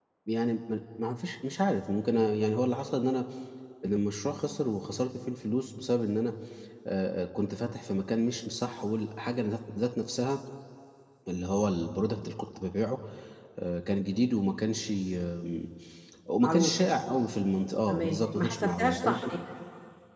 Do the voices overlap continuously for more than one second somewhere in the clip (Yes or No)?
Yes